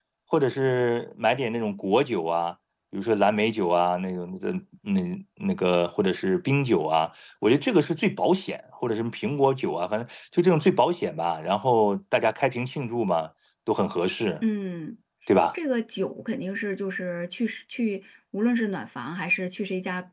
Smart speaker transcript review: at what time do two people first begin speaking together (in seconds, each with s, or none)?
none